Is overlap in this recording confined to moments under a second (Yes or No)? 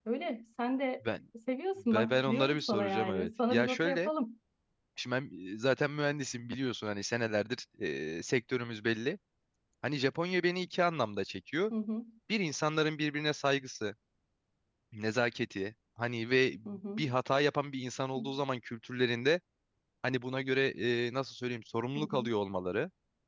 No